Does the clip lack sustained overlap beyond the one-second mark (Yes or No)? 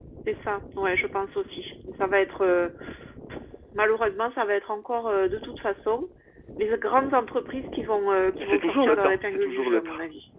No